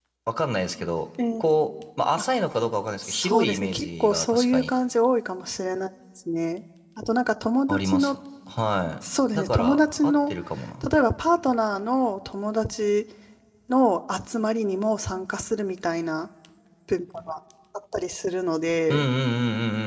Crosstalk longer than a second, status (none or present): present